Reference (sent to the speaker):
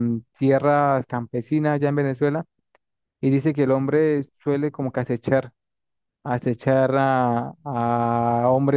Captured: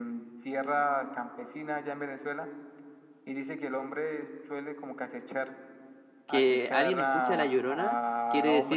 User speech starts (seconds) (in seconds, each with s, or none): 6.3 s